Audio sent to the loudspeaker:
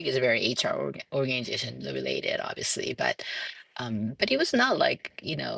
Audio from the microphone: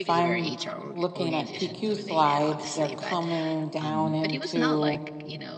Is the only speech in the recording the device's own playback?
No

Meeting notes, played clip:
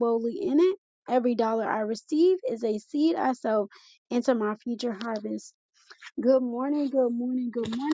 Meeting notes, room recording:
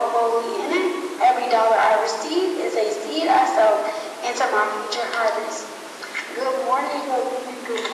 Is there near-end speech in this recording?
No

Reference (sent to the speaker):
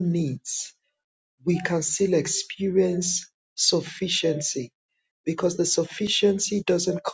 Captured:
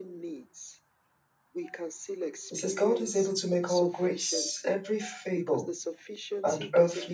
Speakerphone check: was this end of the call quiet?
No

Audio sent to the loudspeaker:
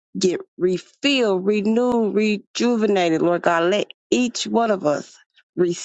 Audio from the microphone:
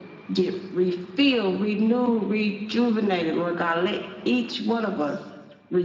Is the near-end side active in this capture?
No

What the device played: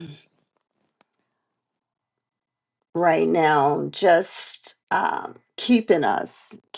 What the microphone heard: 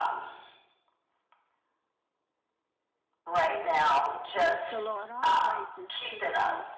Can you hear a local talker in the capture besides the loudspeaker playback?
Yes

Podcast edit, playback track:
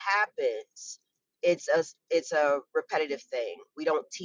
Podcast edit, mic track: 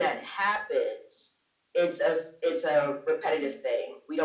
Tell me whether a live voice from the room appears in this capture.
No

